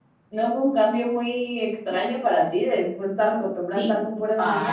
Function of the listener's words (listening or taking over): taking over